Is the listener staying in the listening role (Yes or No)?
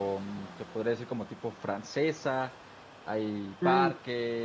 Yes